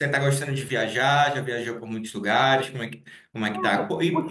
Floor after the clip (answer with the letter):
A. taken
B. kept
A